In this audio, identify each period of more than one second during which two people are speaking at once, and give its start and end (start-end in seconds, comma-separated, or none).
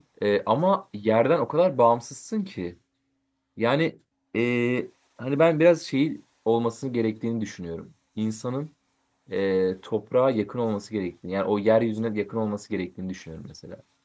none